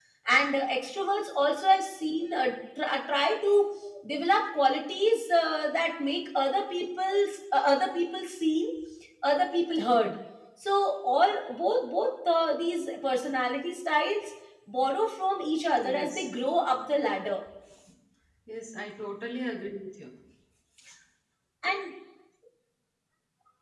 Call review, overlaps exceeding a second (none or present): none